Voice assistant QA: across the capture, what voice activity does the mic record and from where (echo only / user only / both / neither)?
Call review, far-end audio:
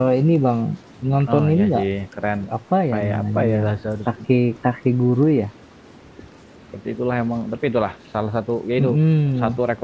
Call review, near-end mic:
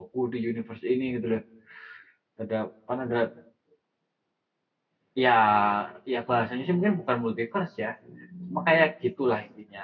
user only